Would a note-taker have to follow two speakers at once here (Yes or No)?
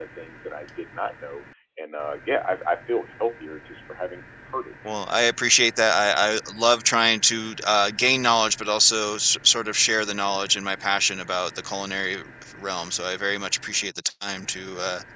No